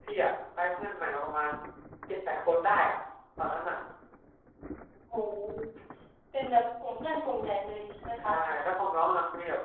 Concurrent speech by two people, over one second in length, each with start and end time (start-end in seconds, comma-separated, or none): none